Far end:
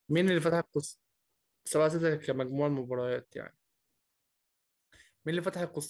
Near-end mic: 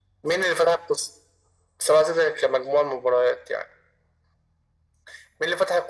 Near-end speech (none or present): none